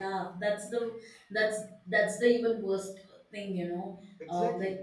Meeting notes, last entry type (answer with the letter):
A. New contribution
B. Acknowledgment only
B